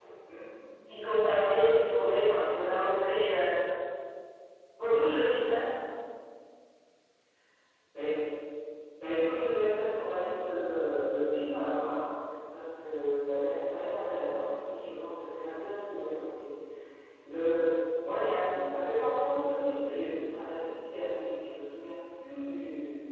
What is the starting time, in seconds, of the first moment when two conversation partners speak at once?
none

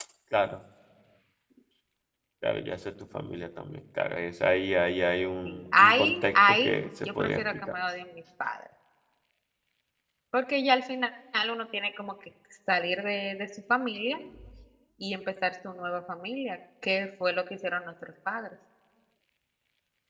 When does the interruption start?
5.4 s

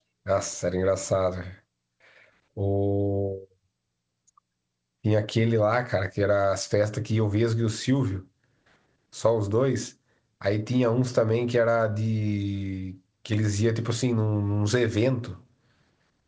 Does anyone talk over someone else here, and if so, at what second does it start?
none

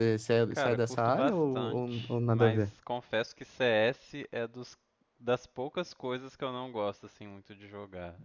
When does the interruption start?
0.5 s

